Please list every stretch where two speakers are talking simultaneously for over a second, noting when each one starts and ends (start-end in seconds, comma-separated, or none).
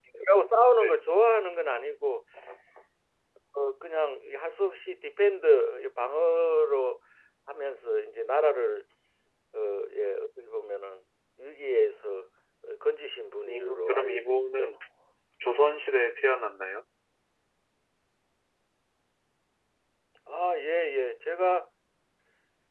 13.5-14.7